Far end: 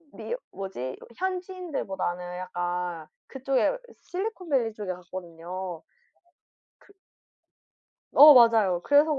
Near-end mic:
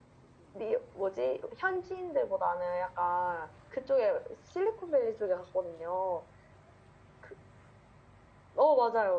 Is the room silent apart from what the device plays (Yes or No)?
Yes